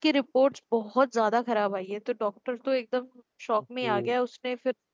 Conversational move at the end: listening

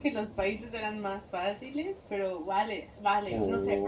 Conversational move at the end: taking over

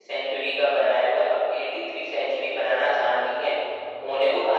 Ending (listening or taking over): listening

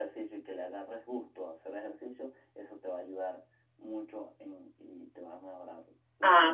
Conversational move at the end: taking over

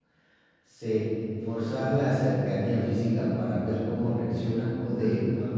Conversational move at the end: listening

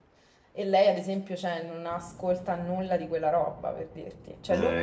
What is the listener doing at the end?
listening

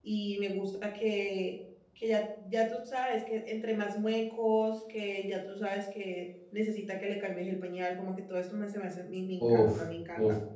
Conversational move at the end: taking over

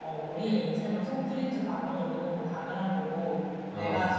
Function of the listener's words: listening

